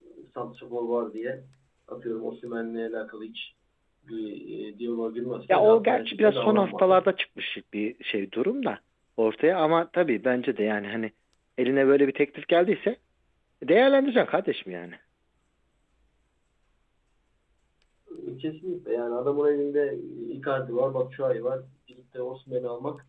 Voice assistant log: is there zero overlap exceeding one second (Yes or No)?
No